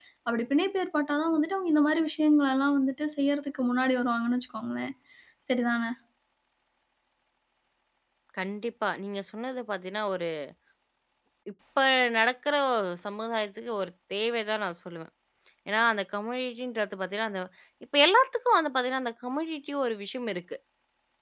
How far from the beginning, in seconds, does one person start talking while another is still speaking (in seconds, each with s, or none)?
none